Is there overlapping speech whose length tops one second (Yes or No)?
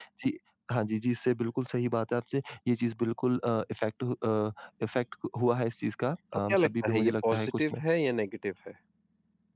Yes